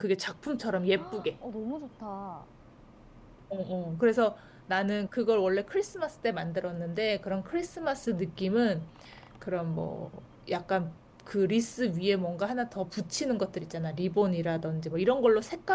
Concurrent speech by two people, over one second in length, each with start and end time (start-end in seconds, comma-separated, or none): none